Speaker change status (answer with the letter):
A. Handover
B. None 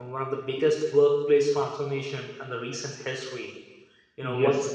B